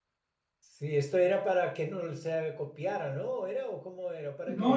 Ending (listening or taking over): taking over